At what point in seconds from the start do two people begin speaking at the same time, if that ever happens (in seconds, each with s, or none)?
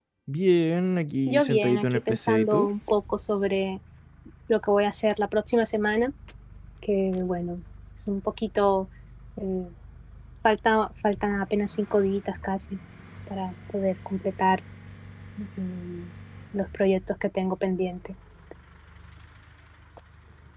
1.3 s